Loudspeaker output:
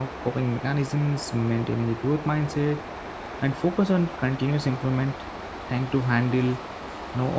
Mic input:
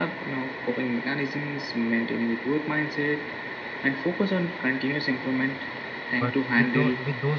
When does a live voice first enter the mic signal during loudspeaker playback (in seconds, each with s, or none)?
6.2 s